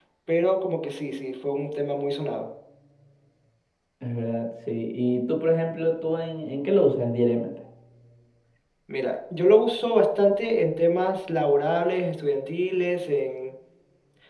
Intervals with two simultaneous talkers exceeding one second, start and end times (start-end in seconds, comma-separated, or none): none